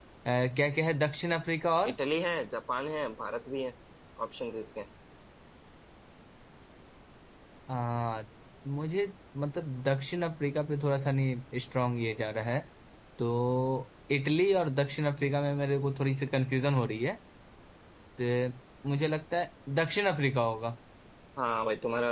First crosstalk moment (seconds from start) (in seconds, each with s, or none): none